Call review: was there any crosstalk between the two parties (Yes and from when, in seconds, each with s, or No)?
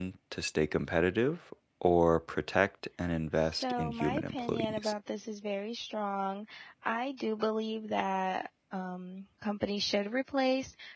Yes, from 3.6 s